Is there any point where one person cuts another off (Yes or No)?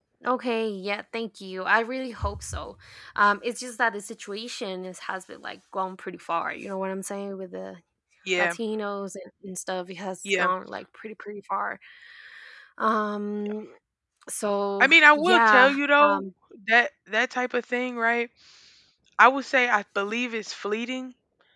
Yes